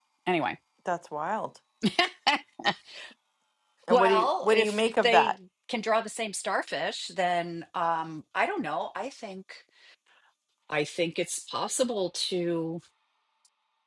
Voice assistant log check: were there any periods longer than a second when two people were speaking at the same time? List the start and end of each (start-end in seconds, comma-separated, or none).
3.9-5.3